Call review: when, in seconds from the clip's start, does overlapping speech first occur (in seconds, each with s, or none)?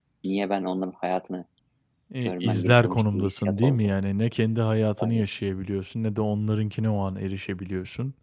2.2 s